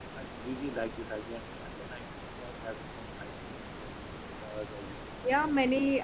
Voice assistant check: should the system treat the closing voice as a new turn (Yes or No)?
Yes